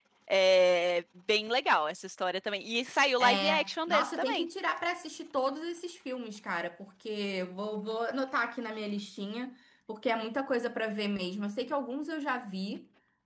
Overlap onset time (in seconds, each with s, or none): 3.2 s